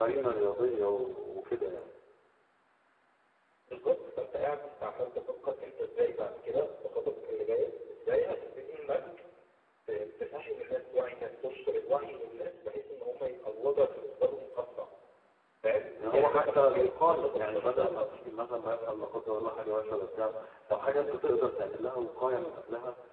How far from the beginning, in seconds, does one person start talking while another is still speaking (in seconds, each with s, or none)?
16.1 s